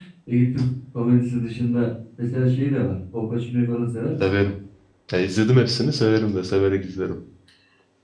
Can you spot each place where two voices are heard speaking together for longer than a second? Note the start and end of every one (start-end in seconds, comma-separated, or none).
none